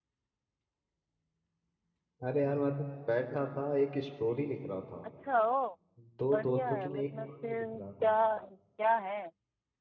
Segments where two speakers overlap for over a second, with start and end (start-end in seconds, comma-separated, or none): 6.3-8.1